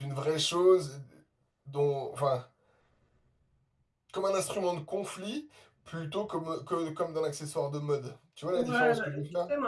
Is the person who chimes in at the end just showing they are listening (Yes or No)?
No